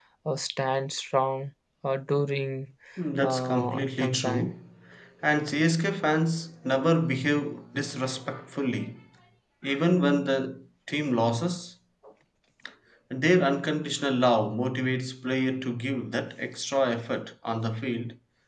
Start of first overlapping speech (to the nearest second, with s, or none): 3 s